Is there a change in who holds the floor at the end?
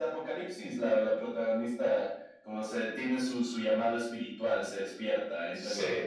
No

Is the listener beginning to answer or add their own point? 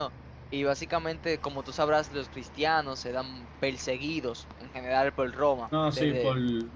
Yes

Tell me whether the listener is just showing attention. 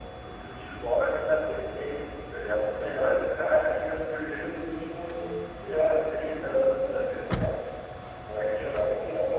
Yes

